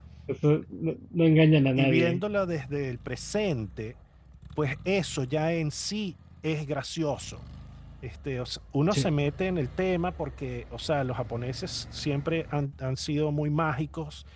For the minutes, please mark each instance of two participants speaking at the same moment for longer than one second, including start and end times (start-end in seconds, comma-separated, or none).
none